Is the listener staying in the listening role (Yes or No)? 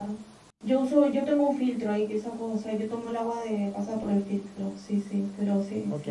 No